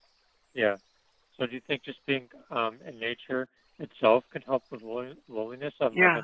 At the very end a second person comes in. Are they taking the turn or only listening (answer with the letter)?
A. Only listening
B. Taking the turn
B